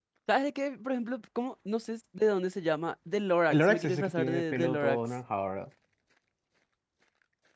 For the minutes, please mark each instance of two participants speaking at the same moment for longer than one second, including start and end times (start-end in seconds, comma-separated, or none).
3.5-5.0